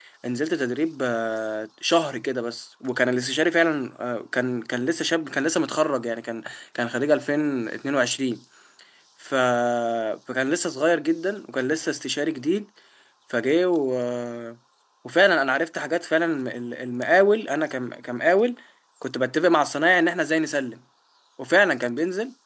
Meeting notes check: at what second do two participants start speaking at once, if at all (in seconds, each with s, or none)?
none